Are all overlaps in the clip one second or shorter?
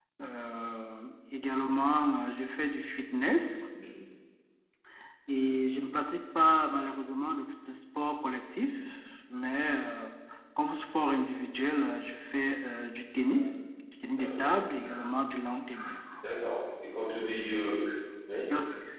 Yes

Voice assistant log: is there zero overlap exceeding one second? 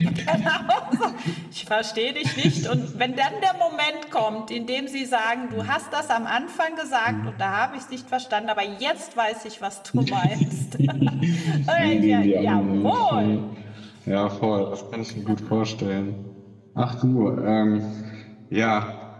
No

